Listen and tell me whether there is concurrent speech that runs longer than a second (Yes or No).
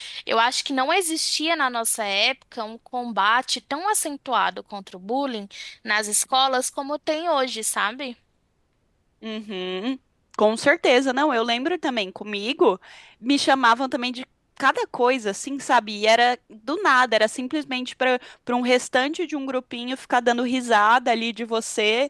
No